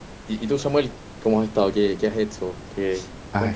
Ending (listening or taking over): taking over